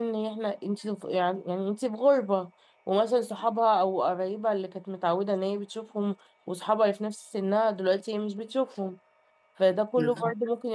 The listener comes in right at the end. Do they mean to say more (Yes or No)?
No